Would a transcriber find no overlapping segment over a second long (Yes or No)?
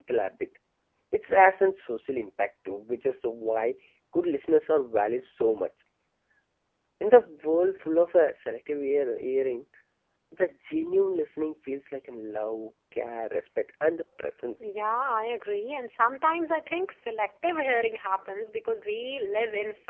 Yes